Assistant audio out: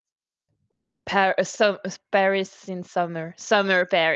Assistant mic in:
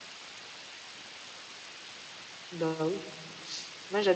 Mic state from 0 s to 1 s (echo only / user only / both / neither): neither